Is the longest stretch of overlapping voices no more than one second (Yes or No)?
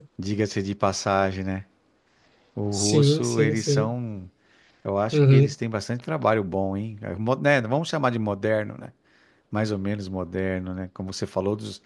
No